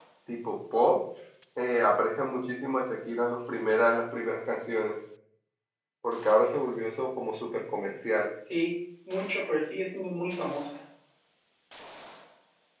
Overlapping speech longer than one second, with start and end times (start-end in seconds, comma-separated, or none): none